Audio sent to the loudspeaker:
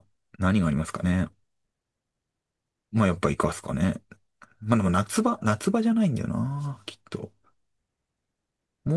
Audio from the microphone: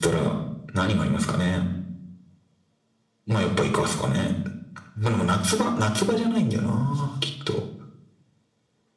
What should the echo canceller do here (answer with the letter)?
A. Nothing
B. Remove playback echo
B